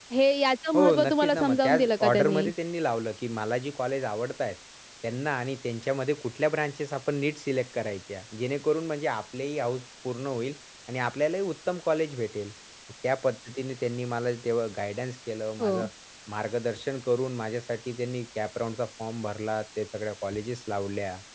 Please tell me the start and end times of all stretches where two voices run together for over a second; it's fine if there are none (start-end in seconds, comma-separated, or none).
0.7-2.5